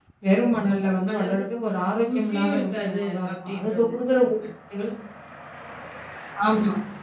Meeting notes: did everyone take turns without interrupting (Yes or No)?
No